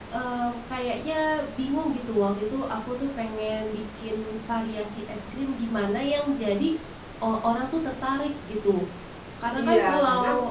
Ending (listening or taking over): taking over